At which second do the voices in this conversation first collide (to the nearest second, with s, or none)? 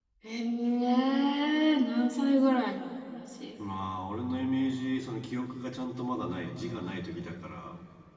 none